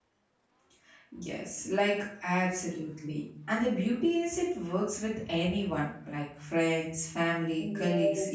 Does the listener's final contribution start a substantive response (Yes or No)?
Yes